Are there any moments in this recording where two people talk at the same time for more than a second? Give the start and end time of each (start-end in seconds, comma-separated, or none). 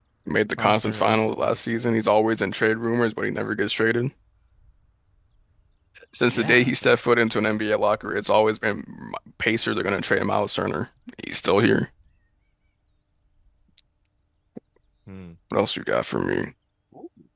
0.6-1.9